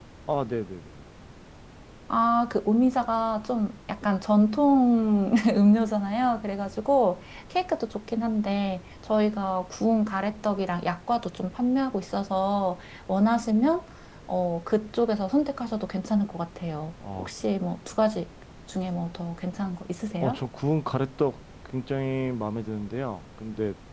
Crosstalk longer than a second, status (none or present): none